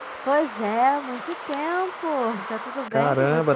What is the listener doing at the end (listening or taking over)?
taking over